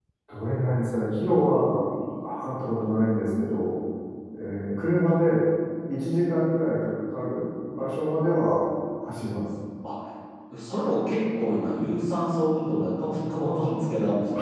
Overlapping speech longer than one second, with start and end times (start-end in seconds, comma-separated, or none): none